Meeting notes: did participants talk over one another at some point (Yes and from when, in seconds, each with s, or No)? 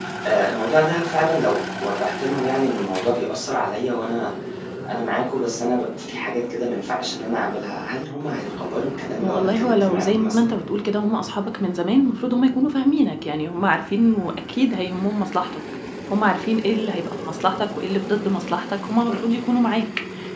Yes, from 9.2 s